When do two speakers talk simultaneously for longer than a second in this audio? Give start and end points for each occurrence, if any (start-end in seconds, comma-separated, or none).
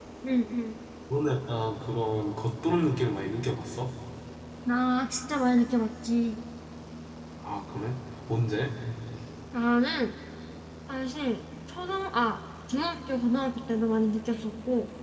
none